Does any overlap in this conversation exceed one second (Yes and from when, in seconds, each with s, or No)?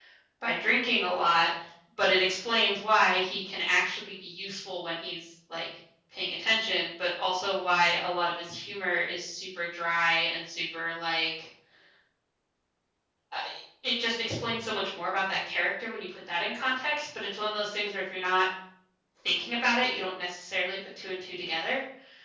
No